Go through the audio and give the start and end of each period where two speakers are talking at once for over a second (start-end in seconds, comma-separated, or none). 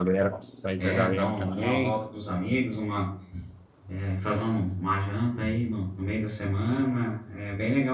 0.8-2.0